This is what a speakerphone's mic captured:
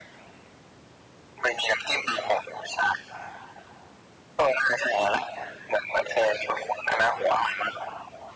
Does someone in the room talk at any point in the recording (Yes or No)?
No